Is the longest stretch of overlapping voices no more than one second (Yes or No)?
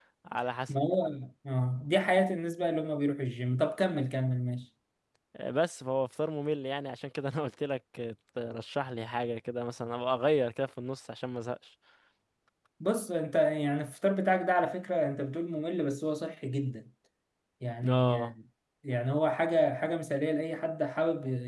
Yes